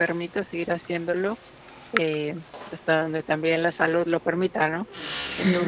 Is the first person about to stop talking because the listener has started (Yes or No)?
Yes